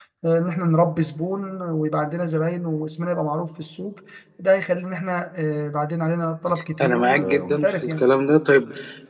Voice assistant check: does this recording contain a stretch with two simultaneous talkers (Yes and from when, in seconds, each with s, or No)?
Yes, from 6.8 s